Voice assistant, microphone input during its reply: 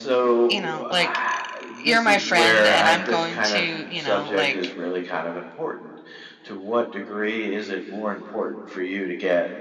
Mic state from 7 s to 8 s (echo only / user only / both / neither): echo only